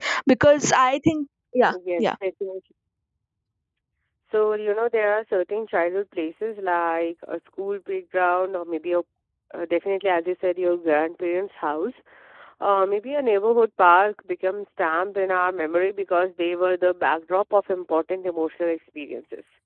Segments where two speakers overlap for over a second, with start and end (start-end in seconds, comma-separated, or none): none